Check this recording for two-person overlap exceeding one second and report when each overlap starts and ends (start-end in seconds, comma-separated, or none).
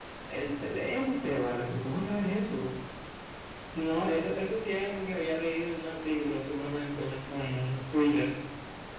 none